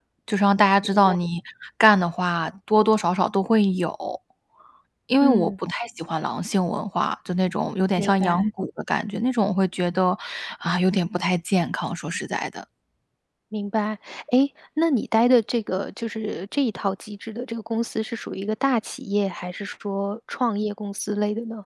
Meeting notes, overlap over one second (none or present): none